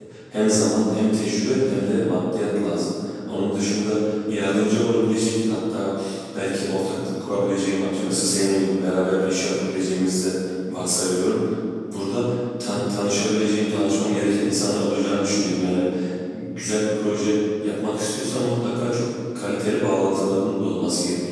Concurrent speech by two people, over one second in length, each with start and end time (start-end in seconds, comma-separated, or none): none